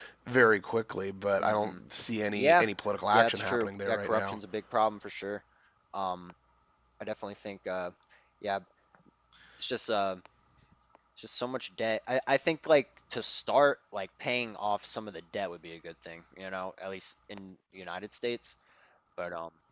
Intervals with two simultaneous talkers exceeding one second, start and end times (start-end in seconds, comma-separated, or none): 3.1-4.4